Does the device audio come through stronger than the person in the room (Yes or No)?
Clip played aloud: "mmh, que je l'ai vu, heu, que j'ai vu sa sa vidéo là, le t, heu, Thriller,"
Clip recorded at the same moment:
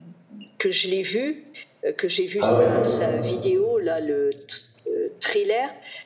No